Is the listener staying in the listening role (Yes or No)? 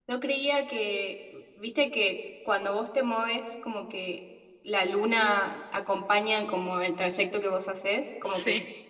Yes